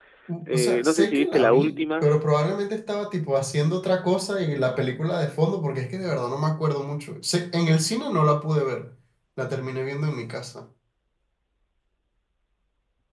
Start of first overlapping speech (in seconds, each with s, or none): 0.5 s